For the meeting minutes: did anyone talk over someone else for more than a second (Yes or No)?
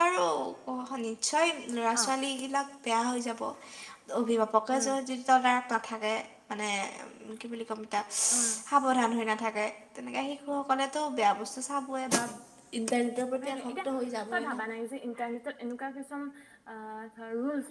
No